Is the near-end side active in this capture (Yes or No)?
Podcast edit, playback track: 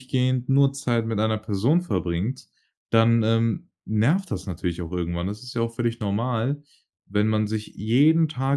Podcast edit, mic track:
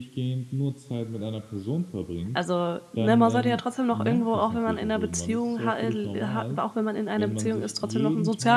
Yes